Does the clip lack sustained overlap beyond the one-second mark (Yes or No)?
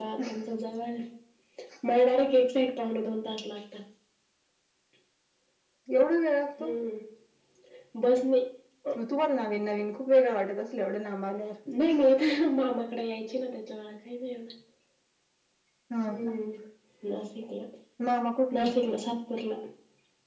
Yes